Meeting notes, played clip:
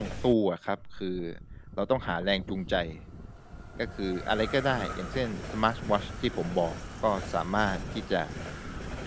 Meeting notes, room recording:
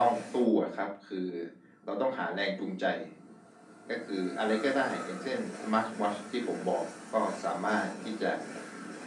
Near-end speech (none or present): none